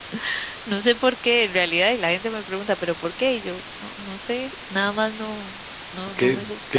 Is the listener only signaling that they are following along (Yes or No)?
No